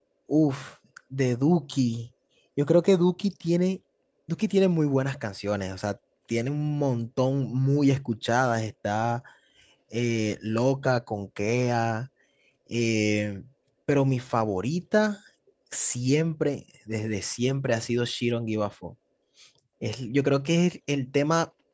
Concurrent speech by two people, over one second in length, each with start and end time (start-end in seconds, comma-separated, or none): none